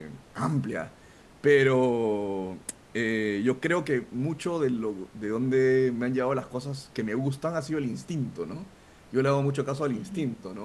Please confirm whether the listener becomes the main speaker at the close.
No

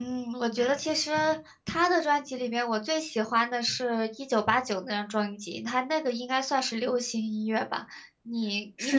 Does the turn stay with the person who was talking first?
No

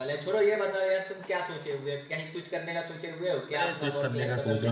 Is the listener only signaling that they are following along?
No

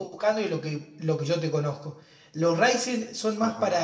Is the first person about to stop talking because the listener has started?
No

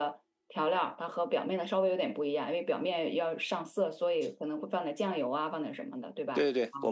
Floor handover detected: Yes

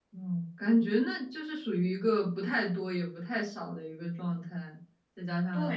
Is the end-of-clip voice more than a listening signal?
Yes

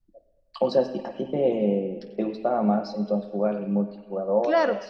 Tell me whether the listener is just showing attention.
No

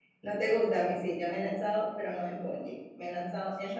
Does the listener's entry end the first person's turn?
Yes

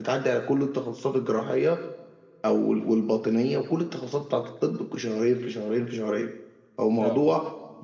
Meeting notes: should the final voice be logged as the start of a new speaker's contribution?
No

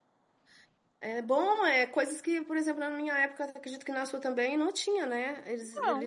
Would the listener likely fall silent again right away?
Yes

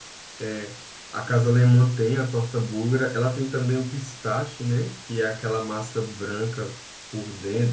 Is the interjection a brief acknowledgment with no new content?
No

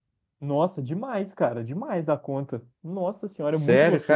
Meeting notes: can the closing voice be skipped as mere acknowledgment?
No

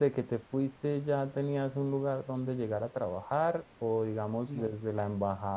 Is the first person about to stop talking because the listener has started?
No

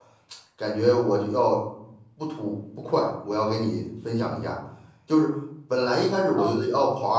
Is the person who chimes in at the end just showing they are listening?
Yes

